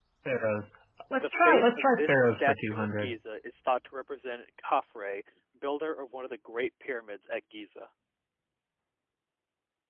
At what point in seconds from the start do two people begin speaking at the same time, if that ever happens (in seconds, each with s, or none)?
1.1 s